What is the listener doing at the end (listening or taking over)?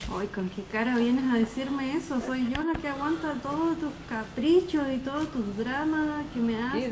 taking over